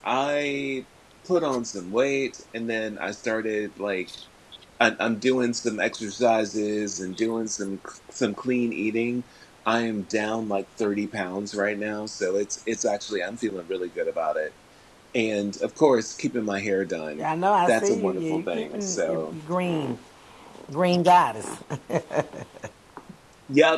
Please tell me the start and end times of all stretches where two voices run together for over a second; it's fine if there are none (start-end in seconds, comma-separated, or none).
17.7-19.4